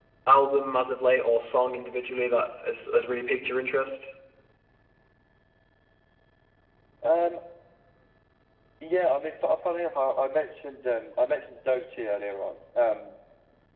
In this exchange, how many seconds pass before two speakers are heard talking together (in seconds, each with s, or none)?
none